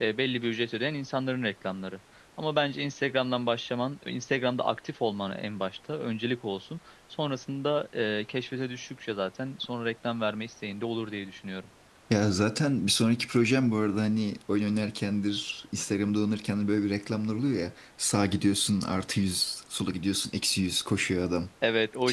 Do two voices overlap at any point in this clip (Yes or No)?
No